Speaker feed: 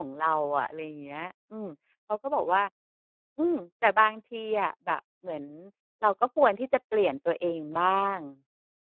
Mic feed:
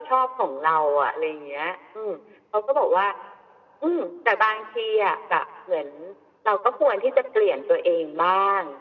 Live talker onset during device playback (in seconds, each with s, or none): none